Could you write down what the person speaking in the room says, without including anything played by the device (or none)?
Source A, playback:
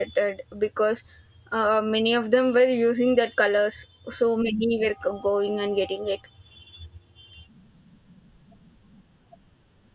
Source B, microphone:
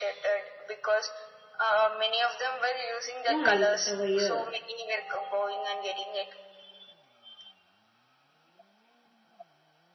uh, point over here.